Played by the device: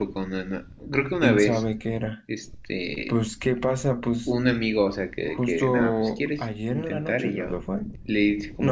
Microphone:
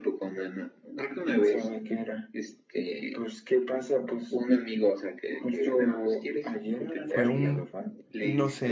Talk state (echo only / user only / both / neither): both